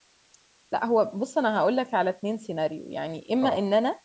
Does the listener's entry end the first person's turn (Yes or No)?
No